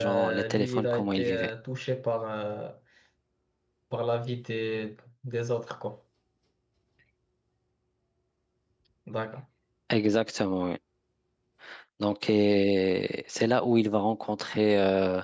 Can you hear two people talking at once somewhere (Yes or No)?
Yes